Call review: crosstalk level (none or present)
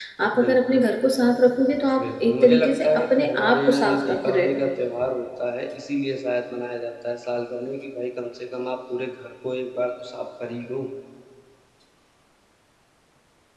present